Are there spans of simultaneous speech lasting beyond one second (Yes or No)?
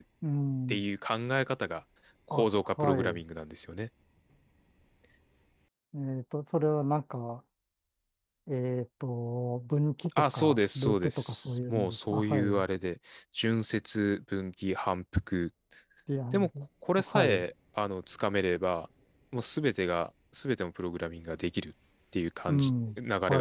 Yes